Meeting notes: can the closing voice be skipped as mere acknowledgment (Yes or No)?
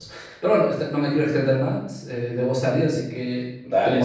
No